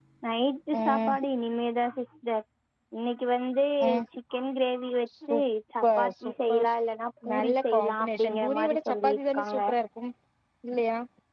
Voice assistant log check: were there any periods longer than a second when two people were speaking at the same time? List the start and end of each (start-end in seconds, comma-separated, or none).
7.5-9.6